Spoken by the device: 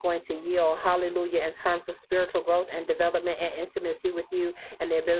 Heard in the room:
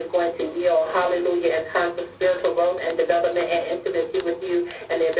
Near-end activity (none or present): none